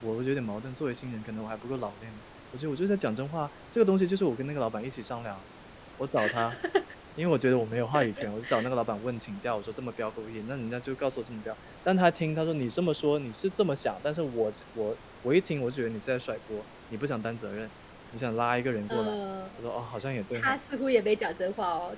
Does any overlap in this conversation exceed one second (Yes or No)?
No